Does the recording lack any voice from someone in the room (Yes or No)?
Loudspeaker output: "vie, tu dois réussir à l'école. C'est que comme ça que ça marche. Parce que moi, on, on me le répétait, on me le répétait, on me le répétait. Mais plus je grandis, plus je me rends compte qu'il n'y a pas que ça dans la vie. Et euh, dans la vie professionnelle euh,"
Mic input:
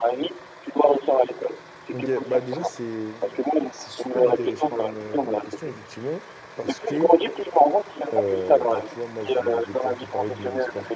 No